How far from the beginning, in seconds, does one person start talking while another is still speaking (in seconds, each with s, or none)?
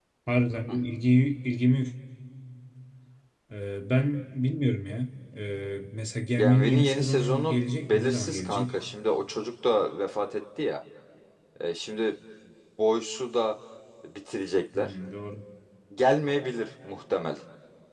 6.4 s